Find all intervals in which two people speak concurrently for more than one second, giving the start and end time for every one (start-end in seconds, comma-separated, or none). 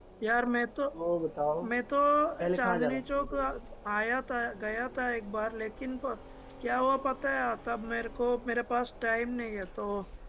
2.4-3.6